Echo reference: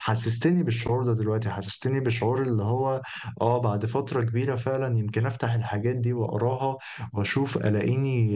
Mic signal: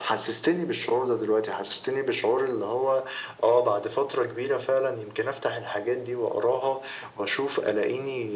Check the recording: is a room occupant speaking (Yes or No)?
No